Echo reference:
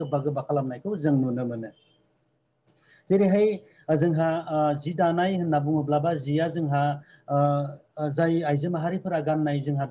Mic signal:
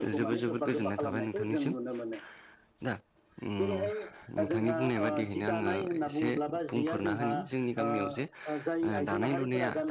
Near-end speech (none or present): present